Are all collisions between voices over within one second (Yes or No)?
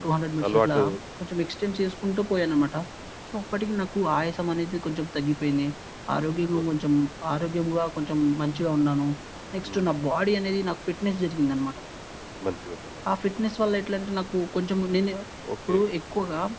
Yes